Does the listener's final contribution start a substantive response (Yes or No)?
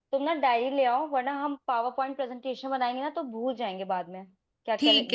Yes